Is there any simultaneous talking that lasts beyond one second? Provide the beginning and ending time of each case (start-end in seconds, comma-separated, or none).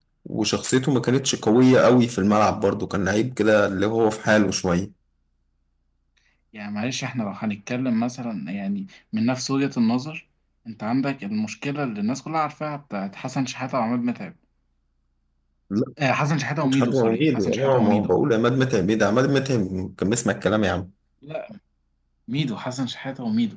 16.6-18.1